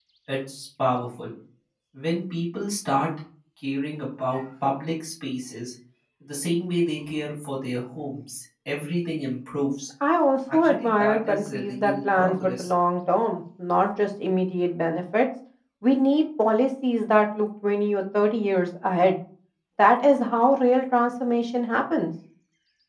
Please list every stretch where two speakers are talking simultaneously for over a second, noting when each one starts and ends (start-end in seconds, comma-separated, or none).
10.5-12.7